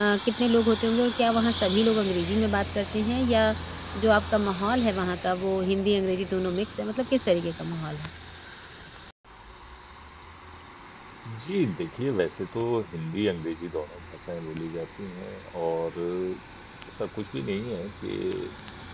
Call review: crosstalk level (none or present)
none